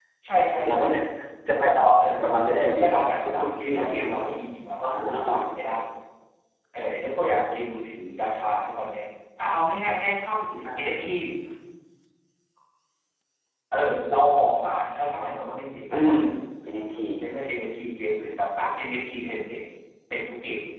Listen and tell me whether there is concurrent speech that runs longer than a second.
Yes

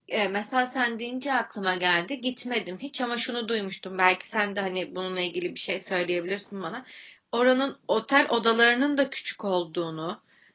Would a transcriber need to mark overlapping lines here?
No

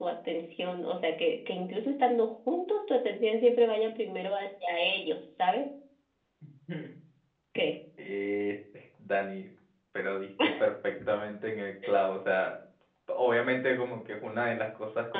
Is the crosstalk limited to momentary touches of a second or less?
Yes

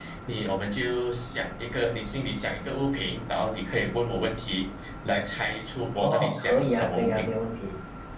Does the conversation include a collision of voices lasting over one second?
Yes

